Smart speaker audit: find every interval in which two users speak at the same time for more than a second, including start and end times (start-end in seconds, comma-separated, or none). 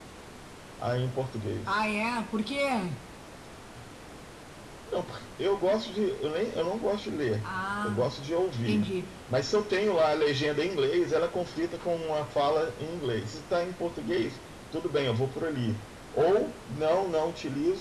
none